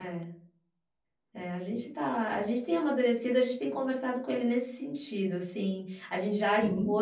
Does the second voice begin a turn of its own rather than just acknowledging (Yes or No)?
No